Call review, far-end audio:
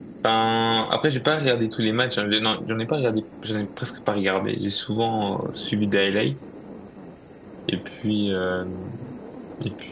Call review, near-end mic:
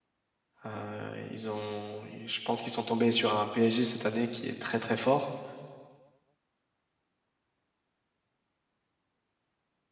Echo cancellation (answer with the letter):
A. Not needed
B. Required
A